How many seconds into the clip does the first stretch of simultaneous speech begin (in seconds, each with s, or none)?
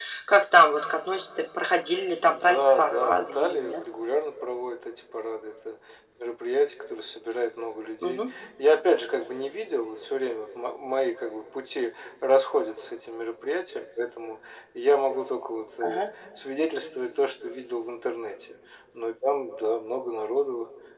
2.3 s